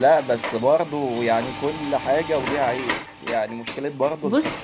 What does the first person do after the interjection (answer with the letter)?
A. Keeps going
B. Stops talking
A